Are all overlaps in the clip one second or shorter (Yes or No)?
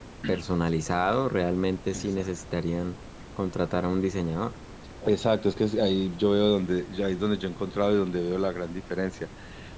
Yes